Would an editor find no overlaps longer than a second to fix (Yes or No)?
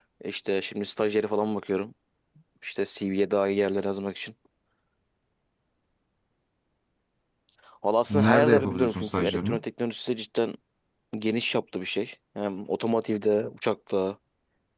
No